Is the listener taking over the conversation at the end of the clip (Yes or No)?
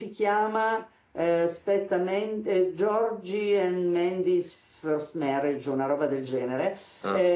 No